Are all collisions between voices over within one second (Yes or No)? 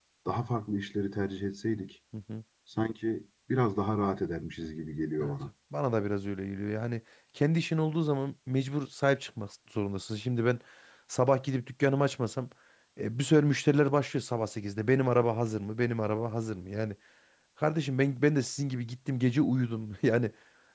Yes